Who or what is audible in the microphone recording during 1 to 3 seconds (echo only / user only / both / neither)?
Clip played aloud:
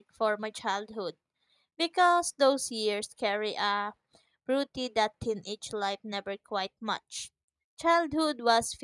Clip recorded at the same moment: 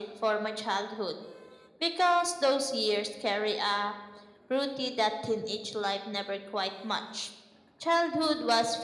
echo only